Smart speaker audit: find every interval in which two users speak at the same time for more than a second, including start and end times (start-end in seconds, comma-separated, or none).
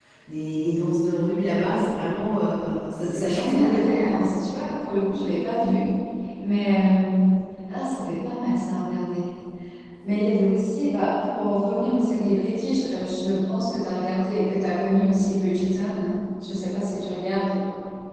2.9-4.2